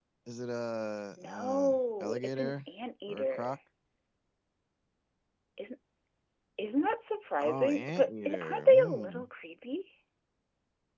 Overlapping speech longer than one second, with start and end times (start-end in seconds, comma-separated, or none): 1.2-2.6, 7.4-9.2